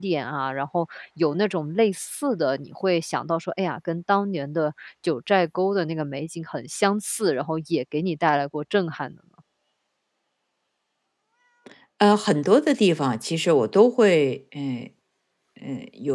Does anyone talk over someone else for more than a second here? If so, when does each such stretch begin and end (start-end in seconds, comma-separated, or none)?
none